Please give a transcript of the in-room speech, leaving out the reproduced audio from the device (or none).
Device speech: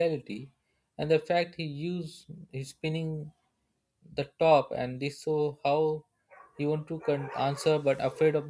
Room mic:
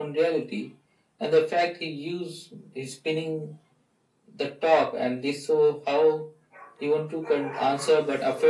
none